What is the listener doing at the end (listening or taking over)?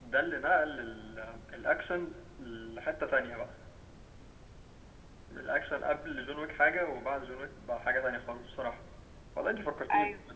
listening